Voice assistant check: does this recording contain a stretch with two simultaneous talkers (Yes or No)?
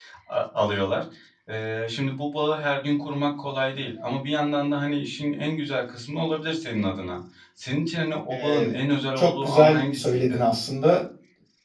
Yes